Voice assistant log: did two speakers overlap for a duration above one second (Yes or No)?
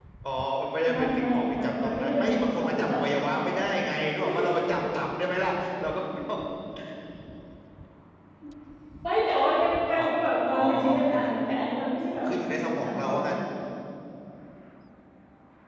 Yes